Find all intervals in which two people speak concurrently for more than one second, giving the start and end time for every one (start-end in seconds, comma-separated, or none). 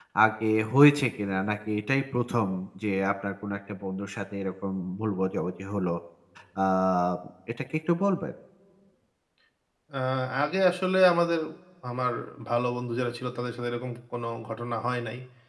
none